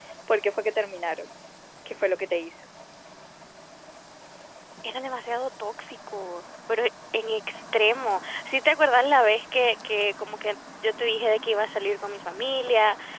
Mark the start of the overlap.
none

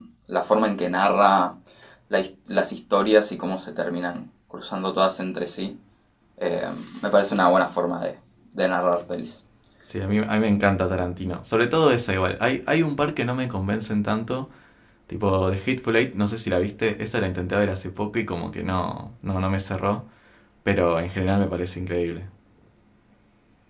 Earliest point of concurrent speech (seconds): none

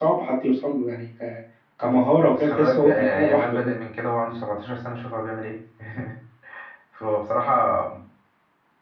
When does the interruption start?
2.4 s

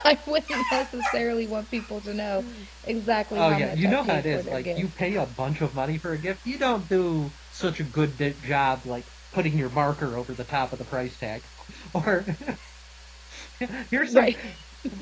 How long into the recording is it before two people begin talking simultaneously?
3.3 s

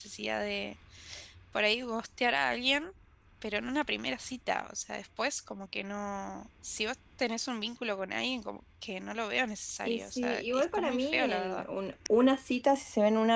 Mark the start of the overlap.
9.8 s

